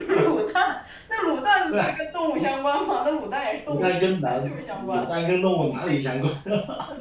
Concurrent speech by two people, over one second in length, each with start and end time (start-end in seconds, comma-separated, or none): 3.7-5.1